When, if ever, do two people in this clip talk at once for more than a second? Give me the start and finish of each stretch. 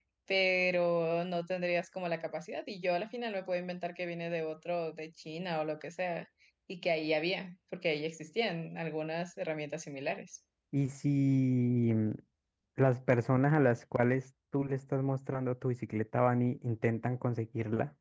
none

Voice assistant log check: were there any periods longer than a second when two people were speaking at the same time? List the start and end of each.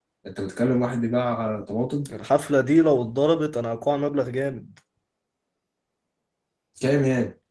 none

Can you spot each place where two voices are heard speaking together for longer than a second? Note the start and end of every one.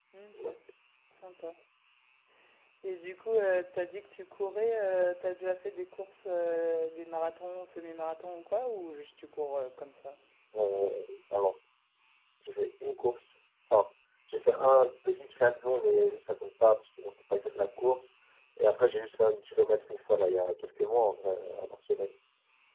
none

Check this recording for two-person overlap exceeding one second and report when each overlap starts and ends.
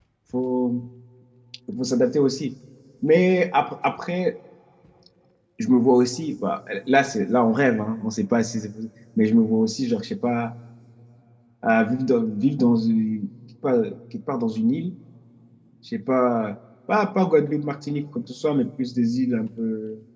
none

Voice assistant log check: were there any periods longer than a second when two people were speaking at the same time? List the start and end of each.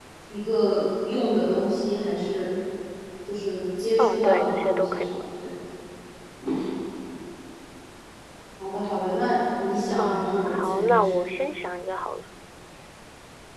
4.0-5.2, 10.0-11.2

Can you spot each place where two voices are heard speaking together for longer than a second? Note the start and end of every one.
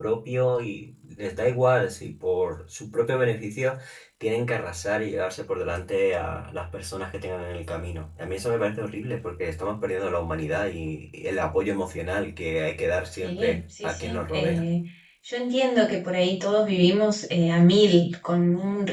13.2-14.6

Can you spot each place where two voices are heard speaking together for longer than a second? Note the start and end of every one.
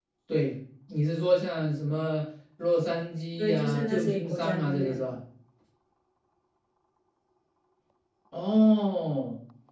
3.4-5.0

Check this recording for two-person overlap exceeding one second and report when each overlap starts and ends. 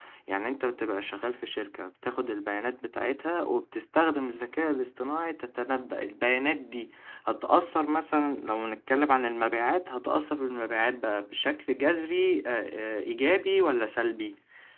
none

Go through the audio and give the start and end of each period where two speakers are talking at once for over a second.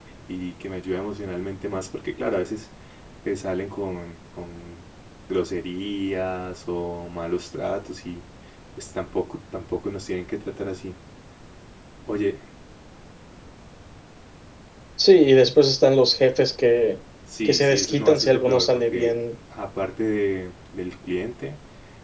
17.4-19.2

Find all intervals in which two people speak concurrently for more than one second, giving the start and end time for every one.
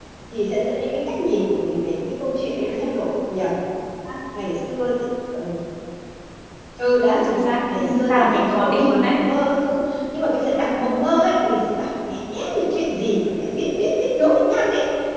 7.8-9.2

